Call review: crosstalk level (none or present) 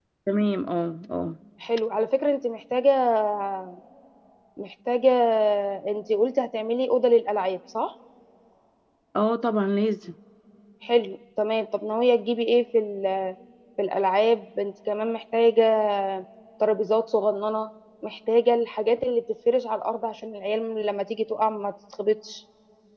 none